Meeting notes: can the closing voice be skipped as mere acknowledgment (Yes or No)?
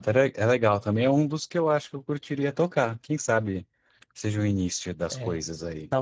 No